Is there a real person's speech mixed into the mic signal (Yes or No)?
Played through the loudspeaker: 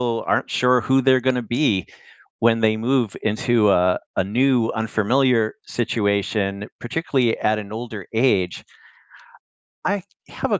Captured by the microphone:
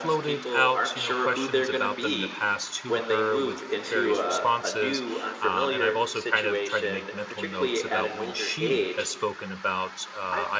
Yes